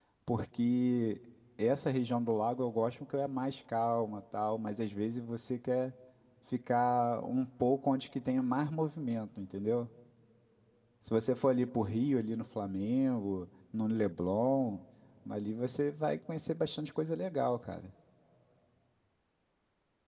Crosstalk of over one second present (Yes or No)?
No